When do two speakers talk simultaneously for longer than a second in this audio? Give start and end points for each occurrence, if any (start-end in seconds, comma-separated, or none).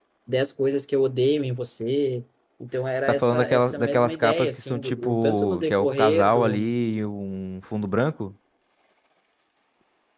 3.1-6.7